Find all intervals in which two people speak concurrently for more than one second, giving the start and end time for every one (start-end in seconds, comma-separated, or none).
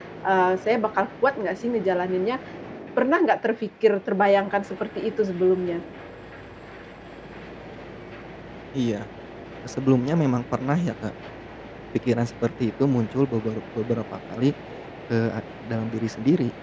none